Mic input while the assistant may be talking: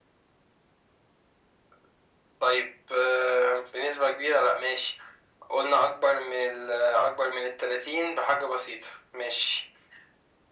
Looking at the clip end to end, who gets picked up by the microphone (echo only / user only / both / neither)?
echo only